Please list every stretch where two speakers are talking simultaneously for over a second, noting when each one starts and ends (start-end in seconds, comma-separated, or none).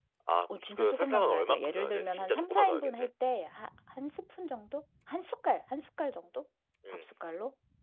0.7-3.1